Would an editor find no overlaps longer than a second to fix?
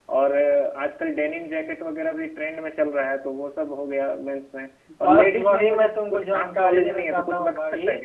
No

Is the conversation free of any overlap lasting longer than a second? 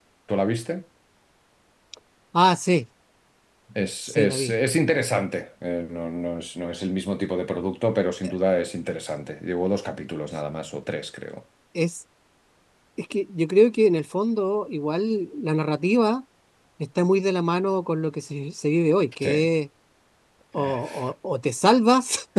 Yes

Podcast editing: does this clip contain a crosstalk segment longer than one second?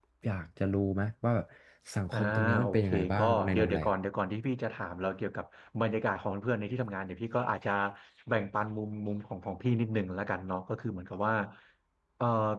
Yes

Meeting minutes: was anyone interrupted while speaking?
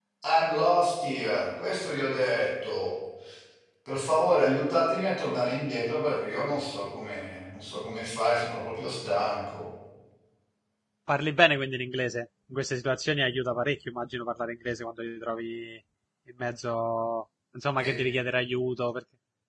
No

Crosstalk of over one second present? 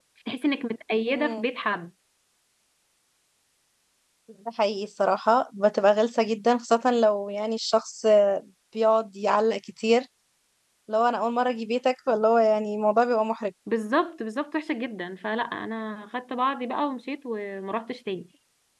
No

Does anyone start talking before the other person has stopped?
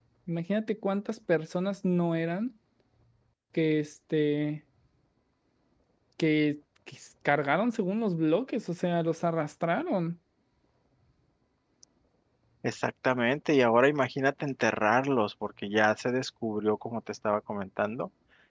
No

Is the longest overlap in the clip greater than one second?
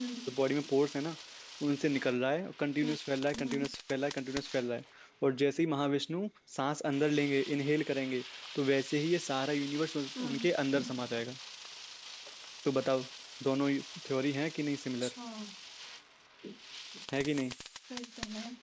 No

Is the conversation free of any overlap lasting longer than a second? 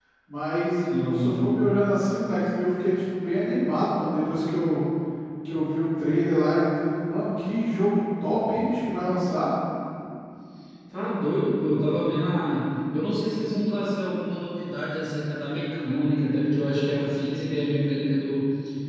Yes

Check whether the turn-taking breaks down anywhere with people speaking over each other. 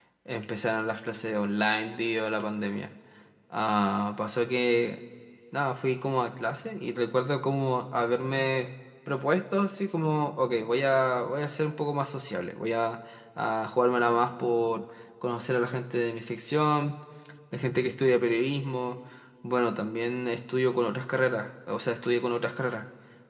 No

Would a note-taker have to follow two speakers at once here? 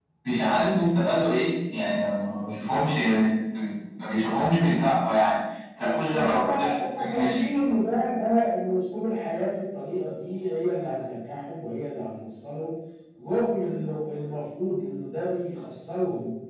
Yes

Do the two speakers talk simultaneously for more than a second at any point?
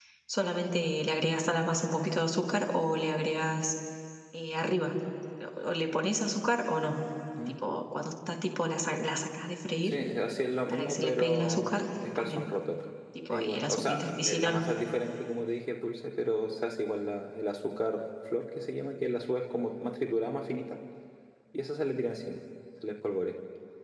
Yes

